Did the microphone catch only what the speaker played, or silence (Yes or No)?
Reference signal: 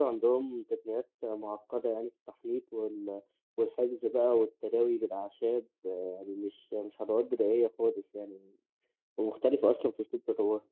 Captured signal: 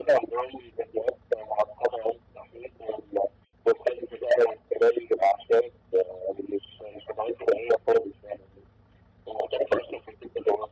Yes